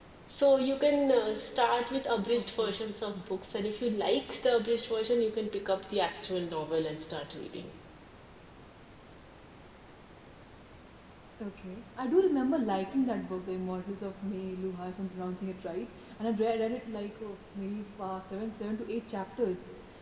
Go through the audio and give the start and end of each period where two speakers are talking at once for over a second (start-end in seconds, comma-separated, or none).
none